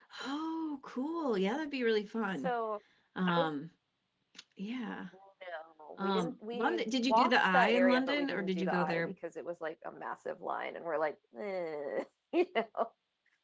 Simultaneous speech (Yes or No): Yes